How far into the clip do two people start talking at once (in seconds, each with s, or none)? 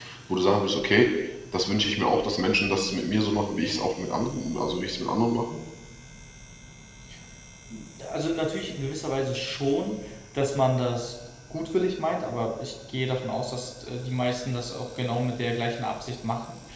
none